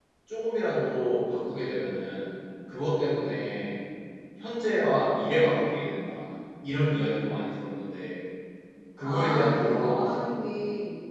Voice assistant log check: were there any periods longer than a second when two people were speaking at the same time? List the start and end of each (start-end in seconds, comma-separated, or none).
9.0-10.2